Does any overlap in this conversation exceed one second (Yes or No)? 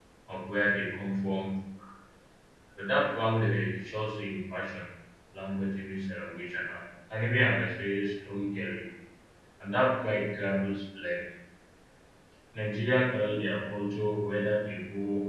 No